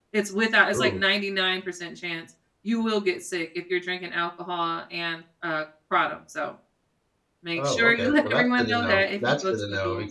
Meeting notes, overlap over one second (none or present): present